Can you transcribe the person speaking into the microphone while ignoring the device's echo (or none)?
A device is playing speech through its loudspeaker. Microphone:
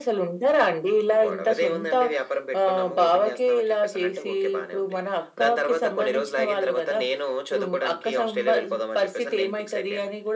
none